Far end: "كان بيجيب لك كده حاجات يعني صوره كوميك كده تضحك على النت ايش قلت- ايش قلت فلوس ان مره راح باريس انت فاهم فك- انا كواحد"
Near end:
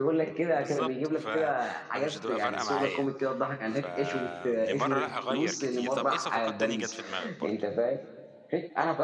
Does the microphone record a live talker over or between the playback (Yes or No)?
Yes